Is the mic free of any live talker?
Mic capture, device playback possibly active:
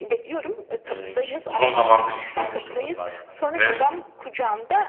No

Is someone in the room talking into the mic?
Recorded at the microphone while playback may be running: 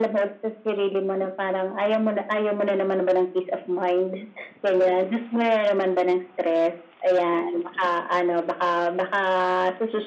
No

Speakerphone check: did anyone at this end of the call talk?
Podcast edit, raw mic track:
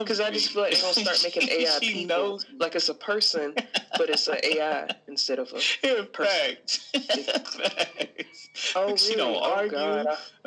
No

